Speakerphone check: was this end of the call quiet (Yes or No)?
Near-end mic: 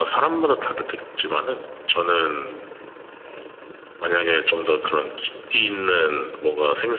Yes